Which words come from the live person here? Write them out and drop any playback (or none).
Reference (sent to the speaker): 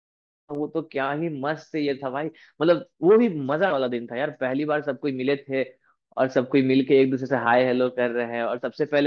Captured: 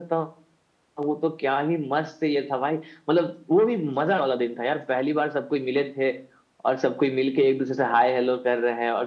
none